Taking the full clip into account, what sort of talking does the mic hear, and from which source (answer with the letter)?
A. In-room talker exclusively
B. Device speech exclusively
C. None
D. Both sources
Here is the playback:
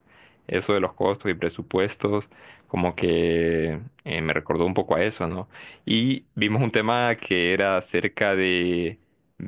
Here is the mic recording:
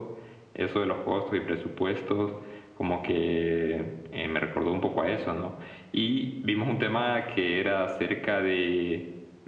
B